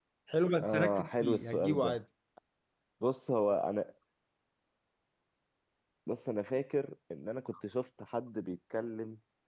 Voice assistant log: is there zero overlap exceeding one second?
No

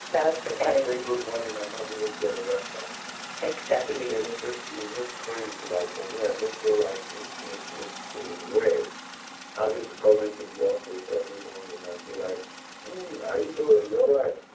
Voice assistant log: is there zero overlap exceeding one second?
Yes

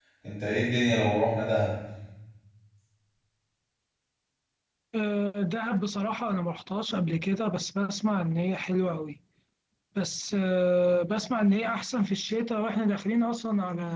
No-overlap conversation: Yes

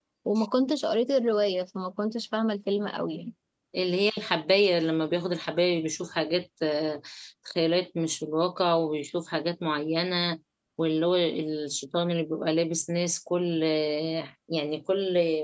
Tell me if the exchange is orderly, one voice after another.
Yes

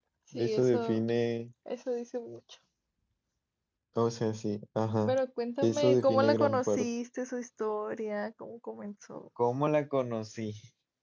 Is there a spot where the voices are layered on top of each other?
Yes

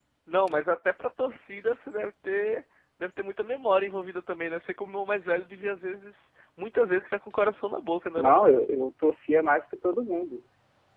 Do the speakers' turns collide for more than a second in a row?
No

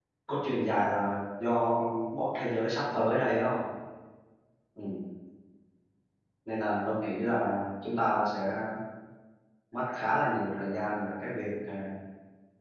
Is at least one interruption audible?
No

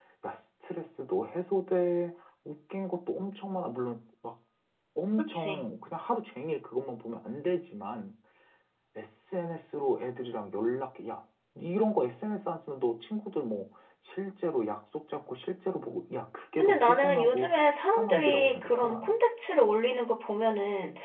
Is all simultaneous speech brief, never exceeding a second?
No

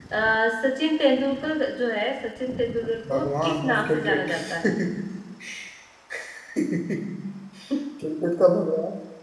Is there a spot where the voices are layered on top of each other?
Yes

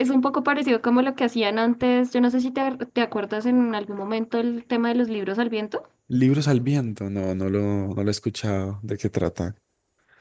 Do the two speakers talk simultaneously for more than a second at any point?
No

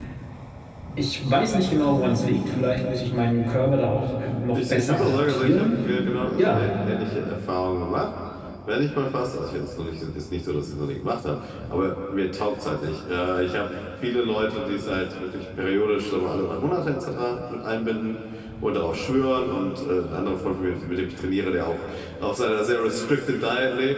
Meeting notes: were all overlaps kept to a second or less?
No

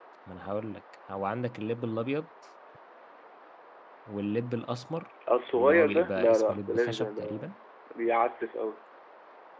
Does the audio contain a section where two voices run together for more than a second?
Yes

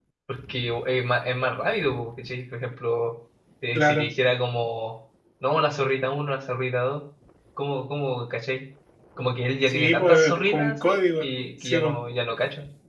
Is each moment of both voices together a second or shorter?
No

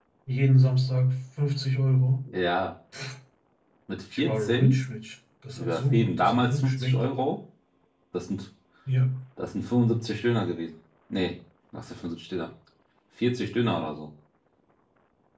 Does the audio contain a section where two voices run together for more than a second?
Yes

